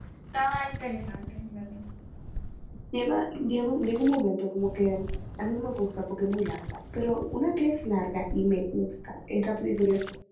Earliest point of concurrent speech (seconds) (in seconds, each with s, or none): none